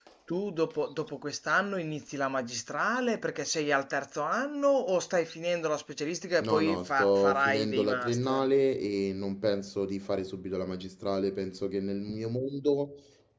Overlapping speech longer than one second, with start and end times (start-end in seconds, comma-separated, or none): 6.4-8.5